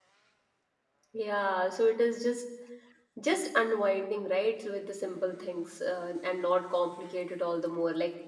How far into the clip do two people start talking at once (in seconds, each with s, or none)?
none